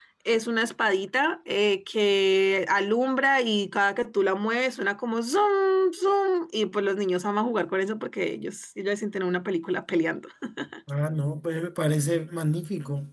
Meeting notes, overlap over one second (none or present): none